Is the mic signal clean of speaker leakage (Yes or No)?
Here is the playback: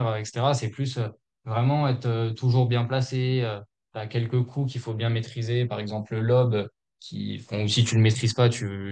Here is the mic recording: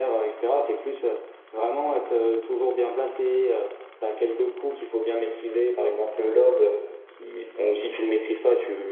No